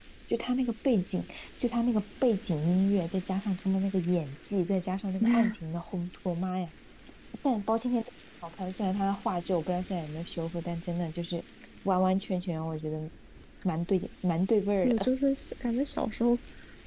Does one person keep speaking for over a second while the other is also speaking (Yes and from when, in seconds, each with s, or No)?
No